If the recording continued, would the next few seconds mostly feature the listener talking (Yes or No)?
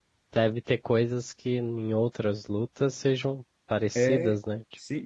Yes